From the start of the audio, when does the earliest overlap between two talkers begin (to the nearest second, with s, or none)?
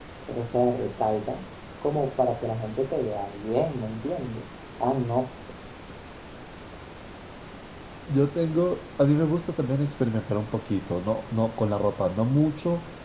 none